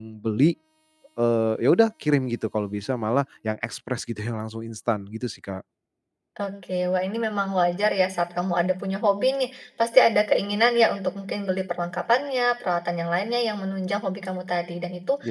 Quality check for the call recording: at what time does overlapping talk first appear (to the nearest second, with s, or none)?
none